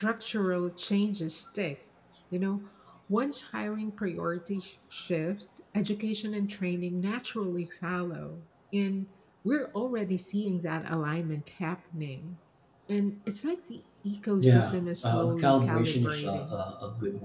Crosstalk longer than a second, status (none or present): present